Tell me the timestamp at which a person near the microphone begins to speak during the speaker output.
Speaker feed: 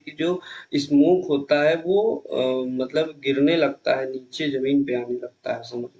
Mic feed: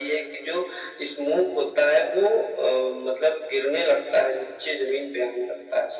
none

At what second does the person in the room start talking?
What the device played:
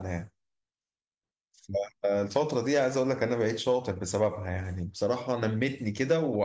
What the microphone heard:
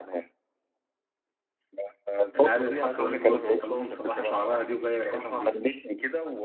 2 s

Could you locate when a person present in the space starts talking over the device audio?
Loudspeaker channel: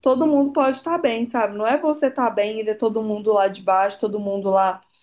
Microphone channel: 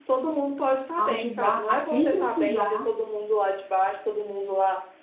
1 s

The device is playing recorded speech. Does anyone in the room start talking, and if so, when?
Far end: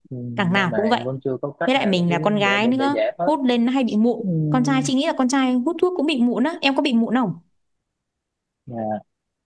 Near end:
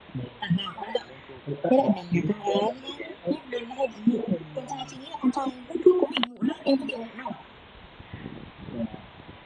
none

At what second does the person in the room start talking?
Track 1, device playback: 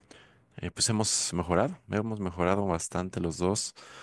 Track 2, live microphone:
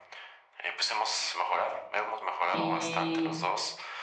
2 s

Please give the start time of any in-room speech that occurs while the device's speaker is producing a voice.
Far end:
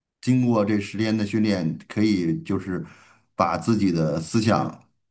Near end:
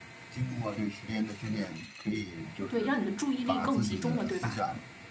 3 s

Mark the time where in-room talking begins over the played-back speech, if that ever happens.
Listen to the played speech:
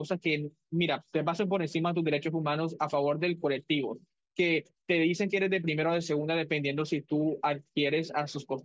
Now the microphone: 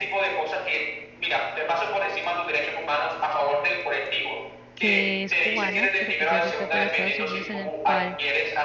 5 s

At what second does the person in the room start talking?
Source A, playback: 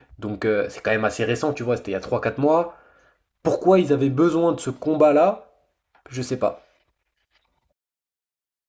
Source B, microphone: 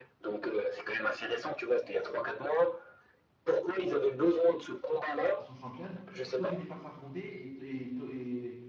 5 s

